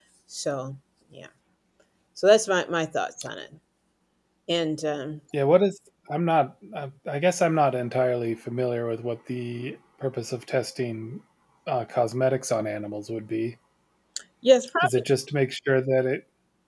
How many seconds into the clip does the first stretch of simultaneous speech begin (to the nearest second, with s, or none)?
none